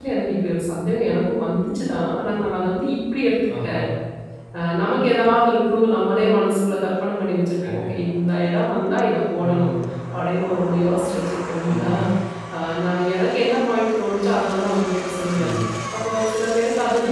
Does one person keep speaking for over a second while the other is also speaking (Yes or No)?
No